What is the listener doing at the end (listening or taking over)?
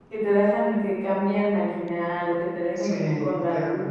taking over